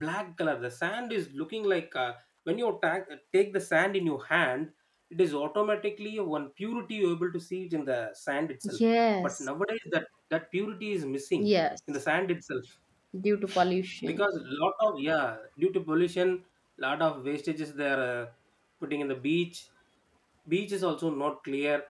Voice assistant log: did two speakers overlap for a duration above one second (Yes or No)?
No